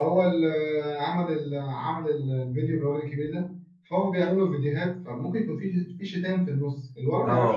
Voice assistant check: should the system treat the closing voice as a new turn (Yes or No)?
Yes